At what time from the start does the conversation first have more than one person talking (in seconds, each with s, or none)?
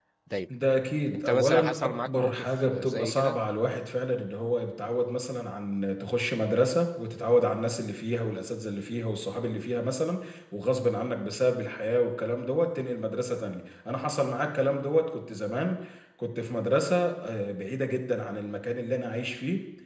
1.1 s